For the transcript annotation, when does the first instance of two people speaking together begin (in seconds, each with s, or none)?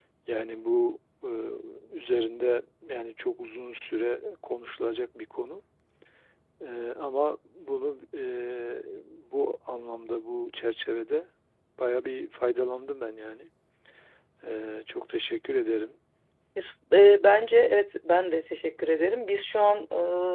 none